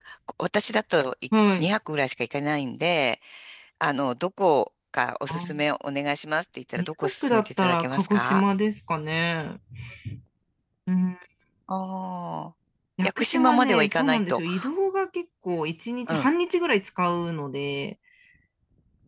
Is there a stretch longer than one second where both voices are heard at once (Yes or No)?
Yes